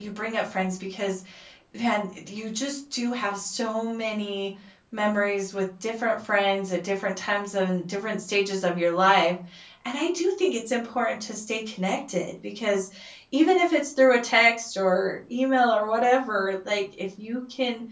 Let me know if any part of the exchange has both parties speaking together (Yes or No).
No